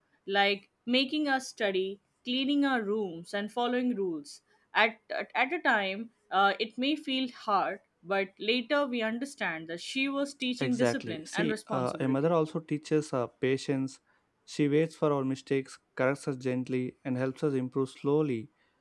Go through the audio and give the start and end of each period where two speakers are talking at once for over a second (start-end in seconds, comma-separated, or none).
10.6-12.1